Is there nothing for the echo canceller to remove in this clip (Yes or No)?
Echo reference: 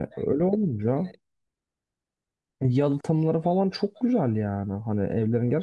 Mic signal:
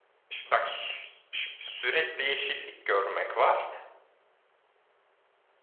Yes